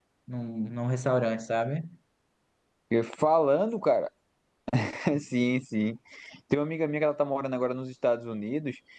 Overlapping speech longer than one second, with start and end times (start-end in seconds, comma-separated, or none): none